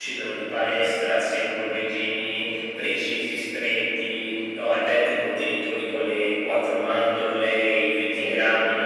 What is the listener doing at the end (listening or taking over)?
listening